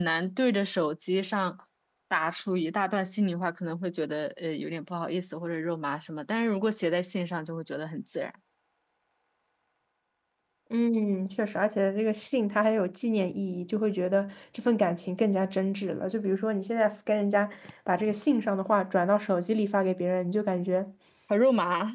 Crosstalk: none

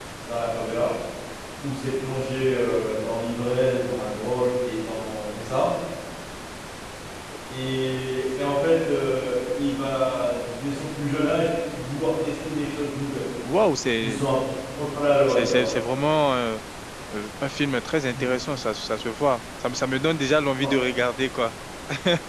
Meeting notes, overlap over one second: none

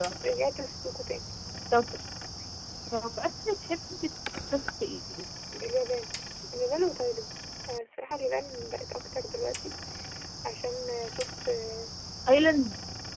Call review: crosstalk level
none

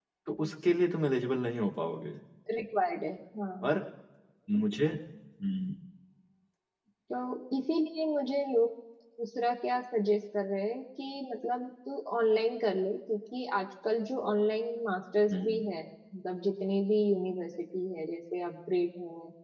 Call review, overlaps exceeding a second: none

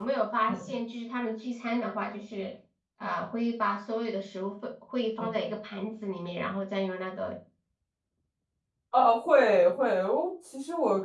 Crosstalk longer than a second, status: none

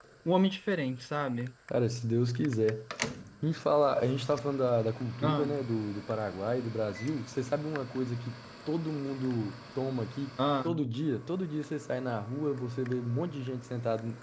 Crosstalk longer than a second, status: none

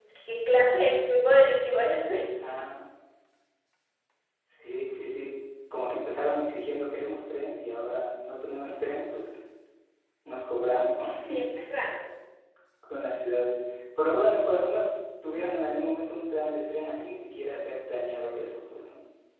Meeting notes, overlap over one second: none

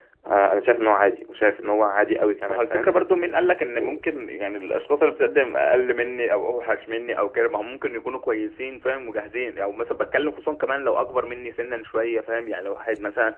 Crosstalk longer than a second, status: none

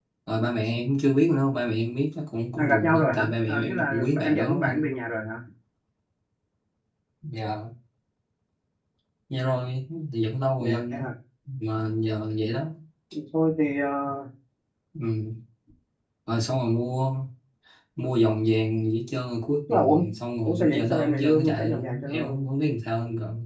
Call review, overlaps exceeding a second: present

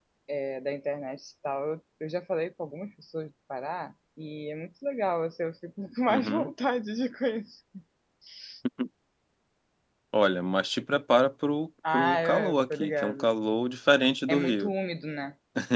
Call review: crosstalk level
present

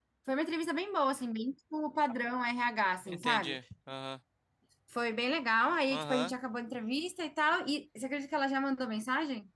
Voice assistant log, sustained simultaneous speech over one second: none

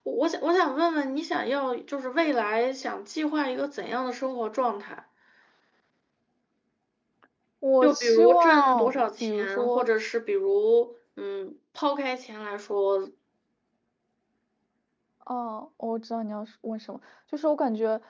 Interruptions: present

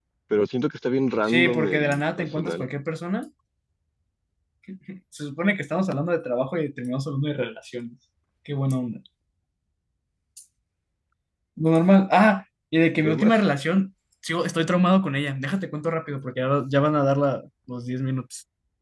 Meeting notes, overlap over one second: present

